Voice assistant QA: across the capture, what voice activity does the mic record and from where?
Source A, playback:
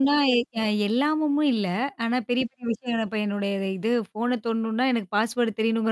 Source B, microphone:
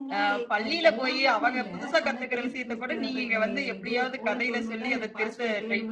both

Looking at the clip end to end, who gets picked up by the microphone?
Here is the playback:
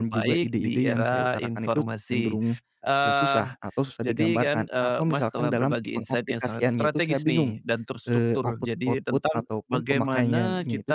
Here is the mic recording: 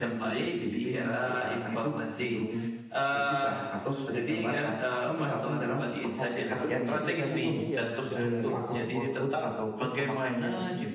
both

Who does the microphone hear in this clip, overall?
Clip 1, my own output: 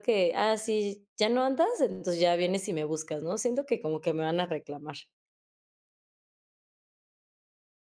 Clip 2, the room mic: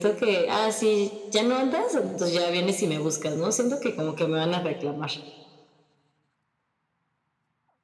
echo only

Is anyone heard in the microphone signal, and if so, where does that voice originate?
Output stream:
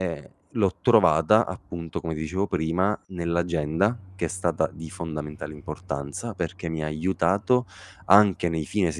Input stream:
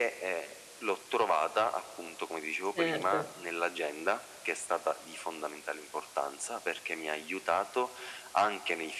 both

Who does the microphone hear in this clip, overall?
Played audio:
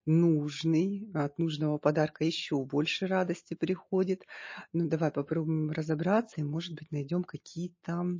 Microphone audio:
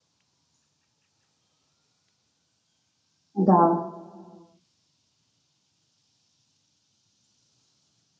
user only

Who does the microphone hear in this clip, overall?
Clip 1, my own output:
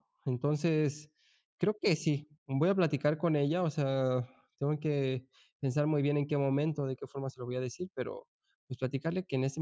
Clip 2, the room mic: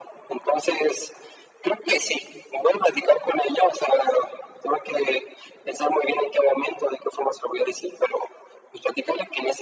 echo only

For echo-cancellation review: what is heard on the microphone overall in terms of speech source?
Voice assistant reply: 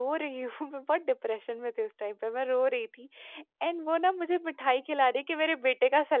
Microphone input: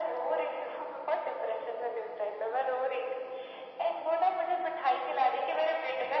echo only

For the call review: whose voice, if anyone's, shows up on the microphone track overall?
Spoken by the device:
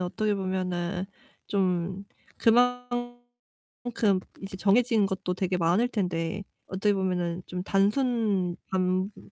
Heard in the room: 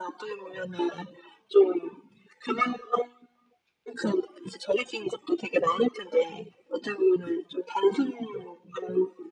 echo only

